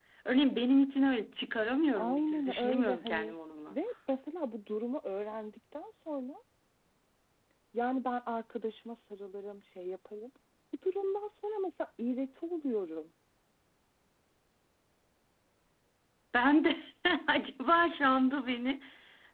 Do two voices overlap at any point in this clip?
Yes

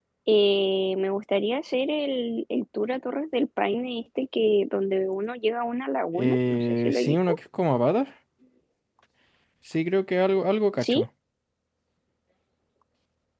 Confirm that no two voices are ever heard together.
No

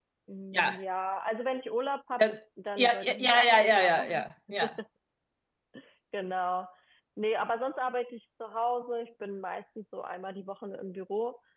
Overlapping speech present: Yes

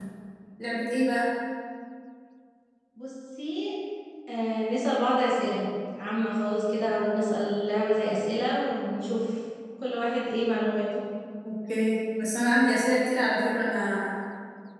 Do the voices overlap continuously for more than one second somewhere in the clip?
No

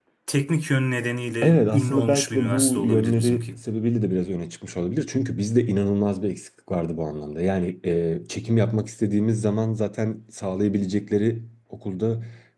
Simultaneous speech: Yes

